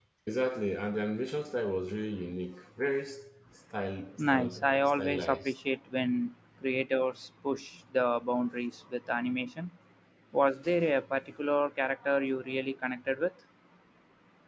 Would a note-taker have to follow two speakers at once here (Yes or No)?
Yes